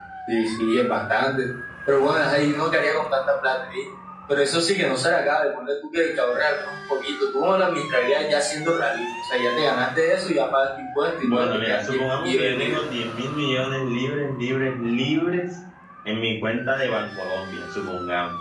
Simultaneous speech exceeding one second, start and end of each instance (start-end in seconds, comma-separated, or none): 11.2-12.8